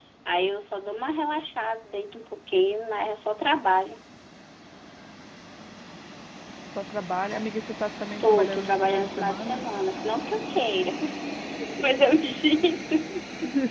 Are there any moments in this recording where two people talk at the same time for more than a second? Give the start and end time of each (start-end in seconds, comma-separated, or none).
8.2-9.6